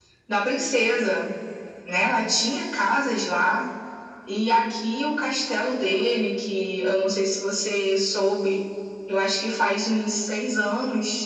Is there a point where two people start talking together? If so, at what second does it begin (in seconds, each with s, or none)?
none